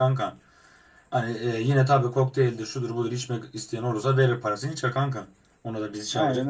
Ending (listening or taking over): taking over